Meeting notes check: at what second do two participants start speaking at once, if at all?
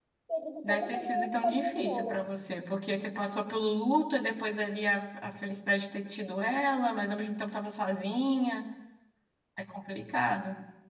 1 s

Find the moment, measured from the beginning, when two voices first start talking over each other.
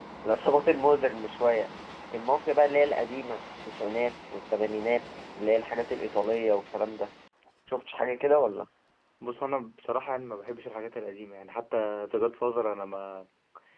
none

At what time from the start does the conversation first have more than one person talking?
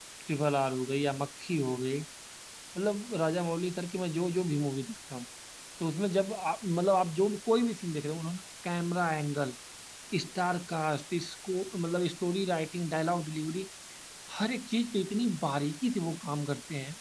none

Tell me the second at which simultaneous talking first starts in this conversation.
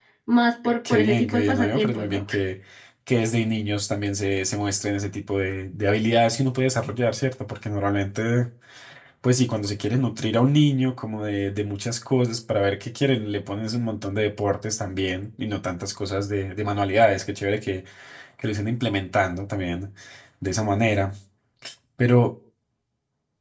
1 s

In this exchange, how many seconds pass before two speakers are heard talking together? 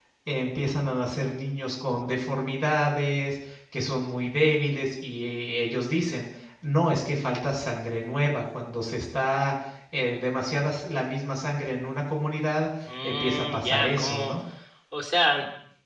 13 s

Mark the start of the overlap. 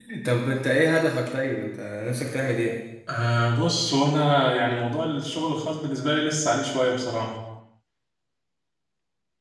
none

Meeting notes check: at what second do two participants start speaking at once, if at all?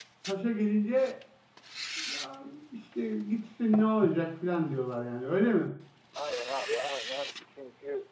none

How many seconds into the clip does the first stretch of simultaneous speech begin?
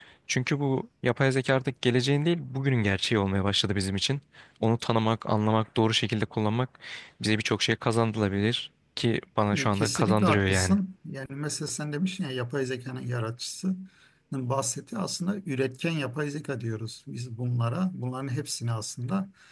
10 s

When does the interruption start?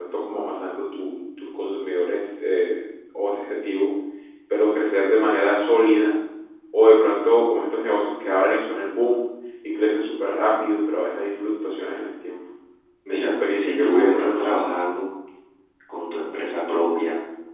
13 s

